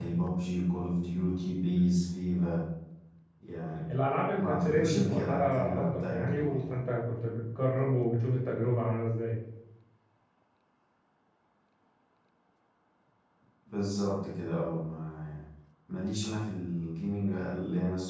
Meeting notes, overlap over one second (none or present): present